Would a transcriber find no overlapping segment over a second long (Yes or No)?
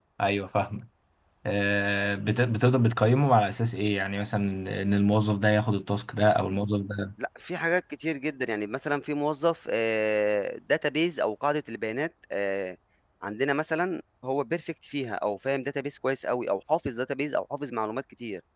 Yes